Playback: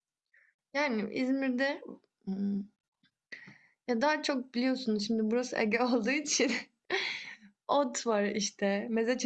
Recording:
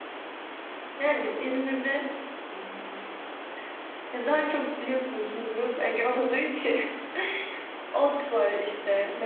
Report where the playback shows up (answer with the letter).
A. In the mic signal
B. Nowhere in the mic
A